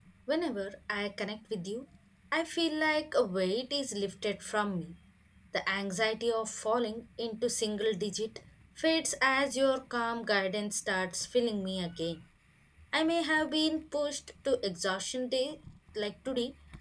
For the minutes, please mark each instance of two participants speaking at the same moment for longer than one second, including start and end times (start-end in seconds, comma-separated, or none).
none